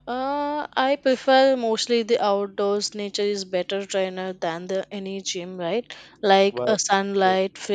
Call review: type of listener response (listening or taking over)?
listening